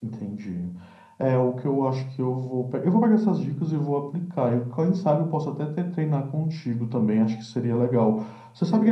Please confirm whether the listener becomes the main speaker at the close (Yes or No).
No